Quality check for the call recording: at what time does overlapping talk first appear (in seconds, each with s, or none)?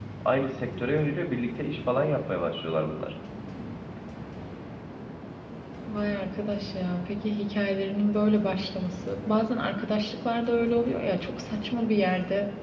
none